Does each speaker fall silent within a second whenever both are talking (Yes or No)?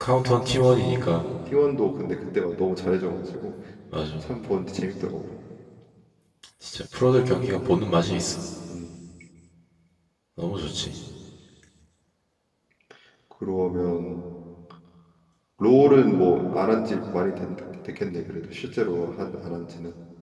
Yes